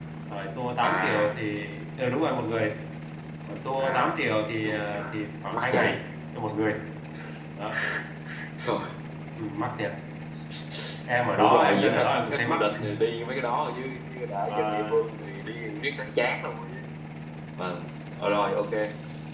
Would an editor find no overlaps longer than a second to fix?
No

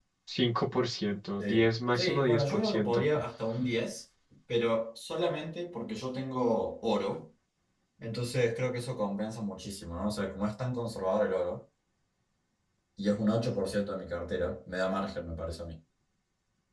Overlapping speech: Yes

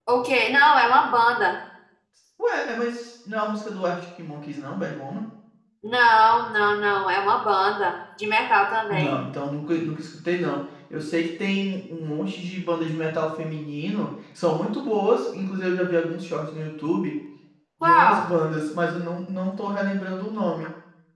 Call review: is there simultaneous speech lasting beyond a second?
No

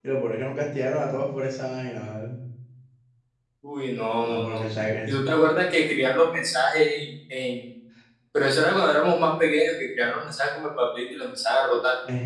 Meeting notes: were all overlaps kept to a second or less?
Yes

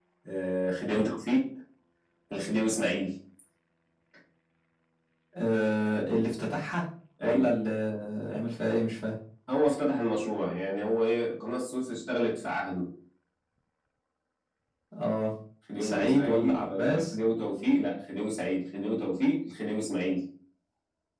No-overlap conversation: No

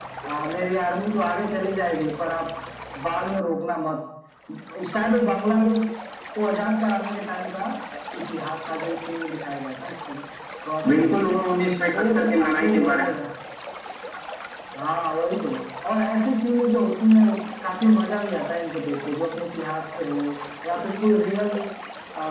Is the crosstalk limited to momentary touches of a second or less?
No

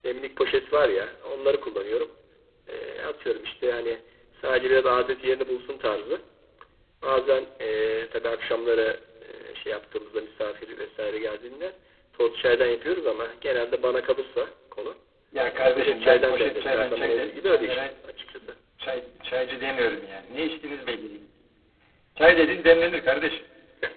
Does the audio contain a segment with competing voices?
Yes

